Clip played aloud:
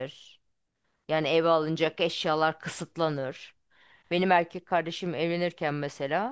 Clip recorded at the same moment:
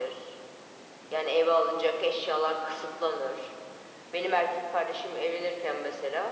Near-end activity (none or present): none